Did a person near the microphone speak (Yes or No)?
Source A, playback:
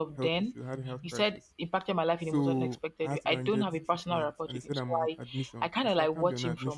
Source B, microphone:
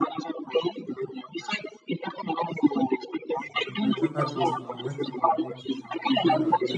Yes